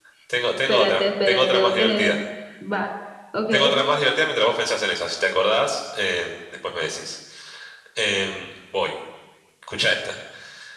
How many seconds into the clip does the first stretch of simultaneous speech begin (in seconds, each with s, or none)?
0.7 s